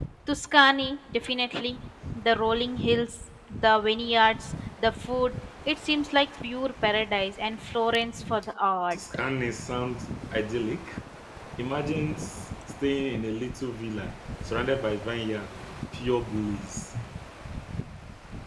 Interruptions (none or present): none